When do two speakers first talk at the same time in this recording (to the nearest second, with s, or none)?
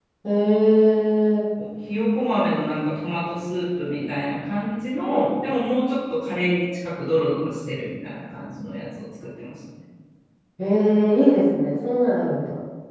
none